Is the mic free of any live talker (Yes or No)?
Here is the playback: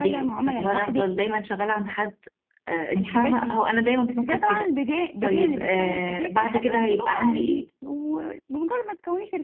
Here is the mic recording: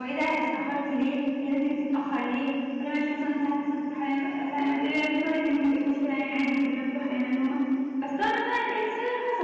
No